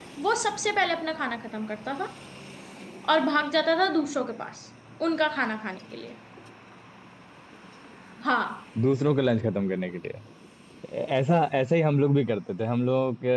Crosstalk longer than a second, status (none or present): none